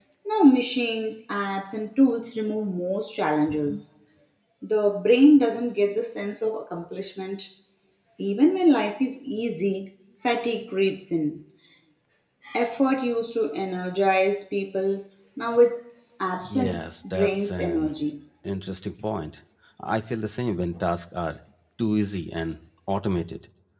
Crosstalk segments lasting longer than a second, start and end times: 16.5-17.9

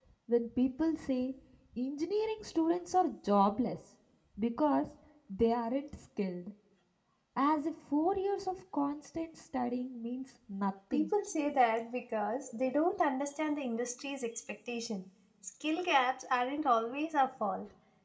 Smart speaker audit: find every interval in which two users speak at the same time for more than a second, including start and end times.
none

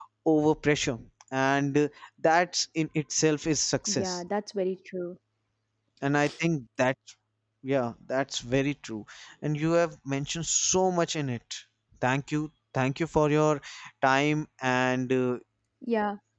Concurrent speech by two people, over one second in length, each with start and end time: none

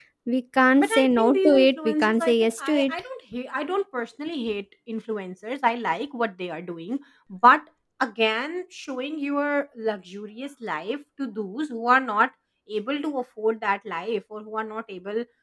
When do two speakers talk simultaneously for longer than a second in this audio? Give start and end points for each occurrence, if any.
0.7-2.9

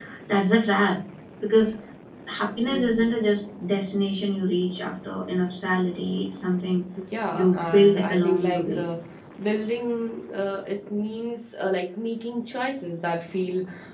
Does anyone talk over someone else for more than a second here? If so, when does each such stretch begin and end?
7.3-8.8

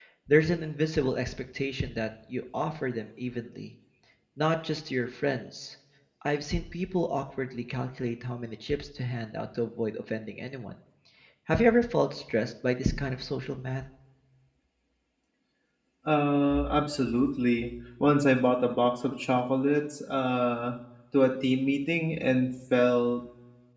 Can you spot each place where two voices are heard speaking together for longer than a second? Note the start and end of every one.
none

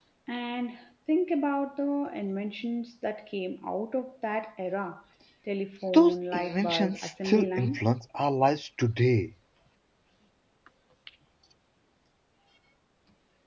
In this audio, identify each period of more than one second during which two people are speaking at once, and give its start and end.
5.9-7.8

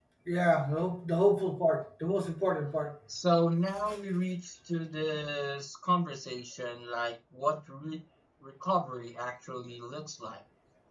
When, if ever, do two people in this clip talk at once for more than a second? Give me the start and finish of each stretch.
none

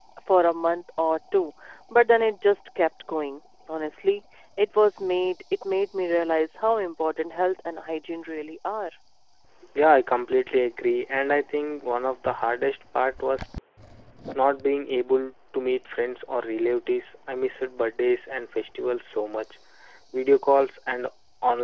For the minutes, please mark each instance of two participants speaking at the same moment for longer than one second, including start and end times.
none

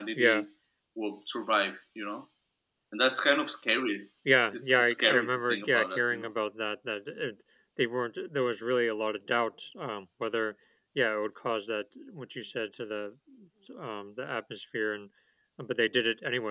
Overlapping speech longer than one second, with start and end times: 4.5-6.3

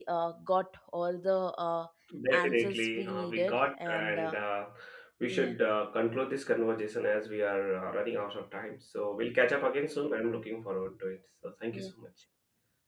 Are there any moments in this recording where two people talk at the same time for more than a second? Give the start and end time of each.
2.3-4.4

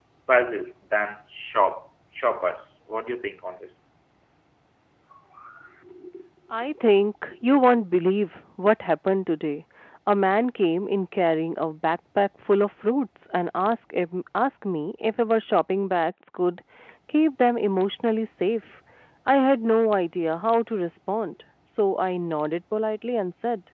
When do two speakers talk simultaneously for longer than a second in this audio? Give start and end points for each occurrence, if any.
none

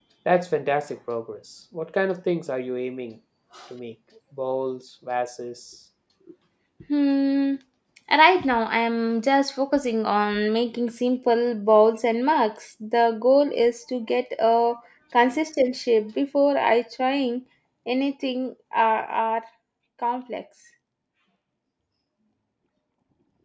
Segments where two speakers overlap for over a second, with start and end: none

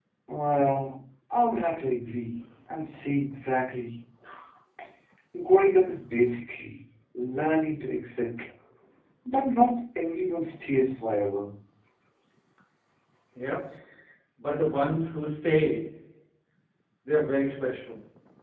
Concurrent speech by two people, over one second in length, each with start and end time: none

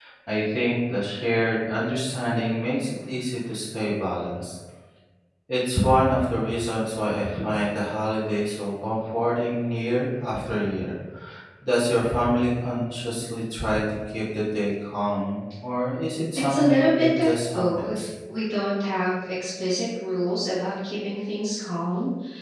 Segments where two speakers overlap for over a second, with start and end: 16.4-18.1

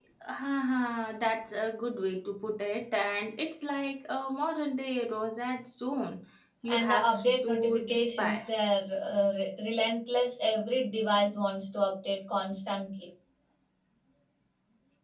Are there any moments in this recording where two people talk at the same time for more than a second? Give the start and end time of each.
6.7-8.4

